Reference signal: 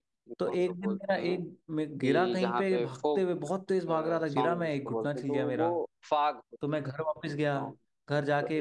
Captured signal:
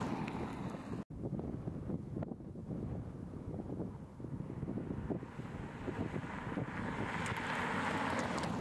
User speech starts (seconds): none

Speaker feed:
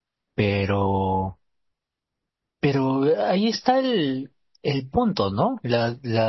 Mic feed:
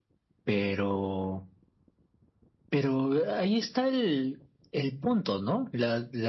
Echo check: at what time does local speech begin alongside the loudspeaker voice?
none

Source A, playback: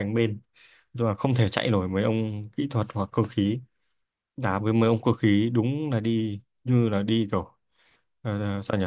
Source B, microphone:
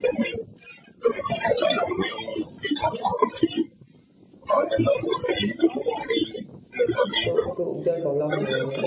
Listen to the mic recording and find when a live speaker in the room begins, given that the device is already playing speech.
7 s

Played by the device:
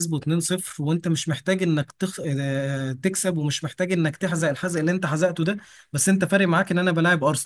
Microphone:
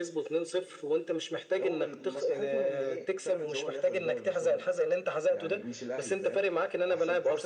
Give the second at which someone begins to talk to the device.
2 s

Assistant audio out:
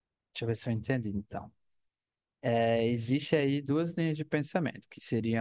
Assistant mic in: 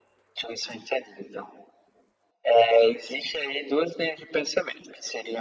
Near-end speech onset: none

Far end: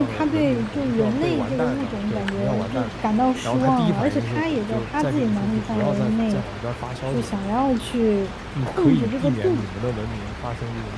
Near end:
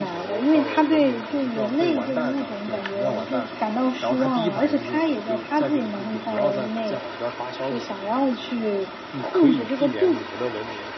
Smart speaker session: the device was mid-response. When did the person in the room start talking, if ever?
none

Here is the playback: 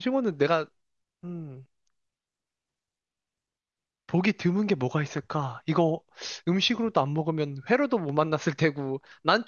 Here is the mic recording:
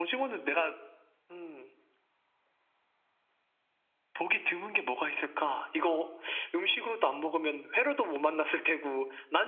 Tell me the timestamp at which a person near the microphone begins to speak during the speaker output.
none

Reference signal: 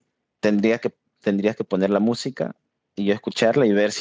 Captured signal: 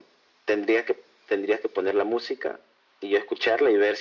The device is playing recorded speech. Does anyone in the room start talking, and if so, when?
none

